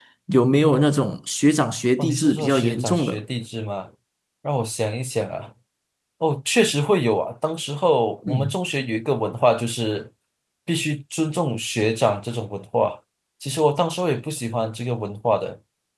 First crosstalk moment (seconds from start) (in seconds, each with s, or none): 2.0 s